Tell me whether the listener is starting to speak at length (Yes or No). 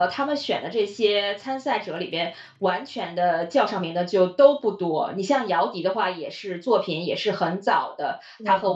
No